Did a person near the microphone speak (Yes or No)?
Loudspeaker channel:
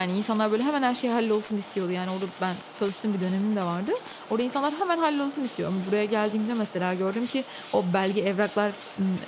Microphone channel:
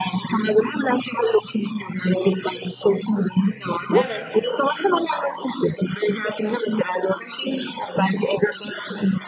Yes